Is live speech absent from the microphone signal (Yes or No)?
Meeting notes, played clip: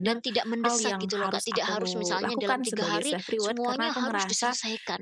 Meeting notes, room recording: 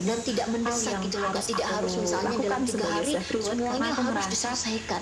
Yes